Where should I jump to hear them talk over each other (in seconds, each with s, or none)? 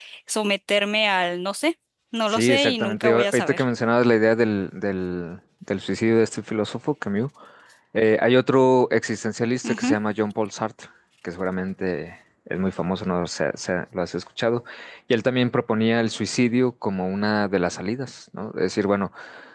2.3 s